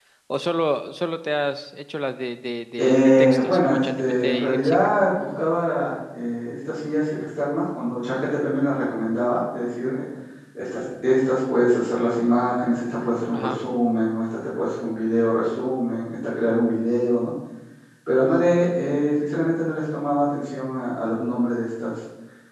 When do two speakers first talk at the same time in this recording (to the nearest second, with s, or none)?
3 s